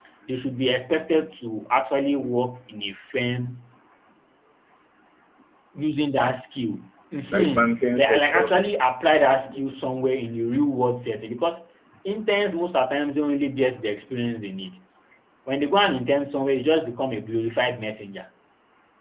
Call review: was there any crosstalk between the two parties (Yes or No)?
Yes